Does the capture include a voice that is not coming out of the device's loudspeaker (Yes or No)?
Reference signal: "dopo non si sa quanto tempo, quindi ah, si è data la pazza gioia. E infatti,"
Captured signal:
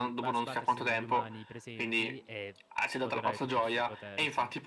Yes